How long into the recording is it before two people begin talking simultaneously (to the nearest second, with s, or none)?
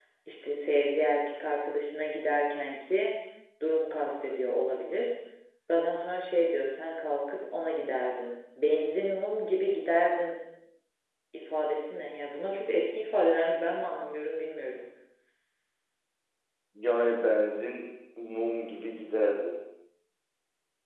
none